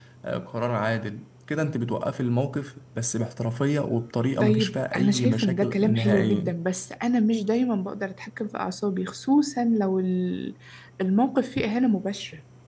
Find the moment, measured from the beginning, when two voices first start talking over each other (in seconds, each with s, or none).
4.4 s